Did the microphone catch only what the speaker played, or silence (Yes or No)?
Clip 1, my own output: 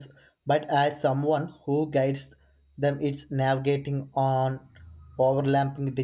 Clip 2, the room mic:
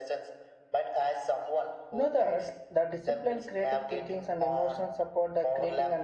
No